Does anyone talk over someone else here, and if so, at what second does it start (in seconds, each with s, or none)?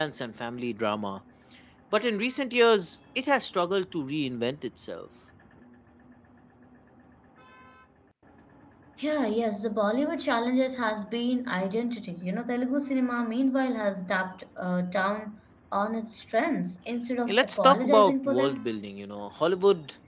17.3 s